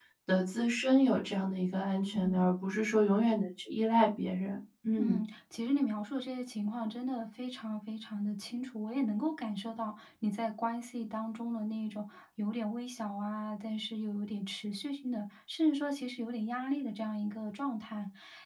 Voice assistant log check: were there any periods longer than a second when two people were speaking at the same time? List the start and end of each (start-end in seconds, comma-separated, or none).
none